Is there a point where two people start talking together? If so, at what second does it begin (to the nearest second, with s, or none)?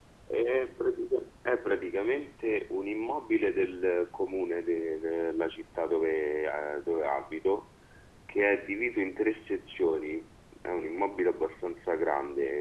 none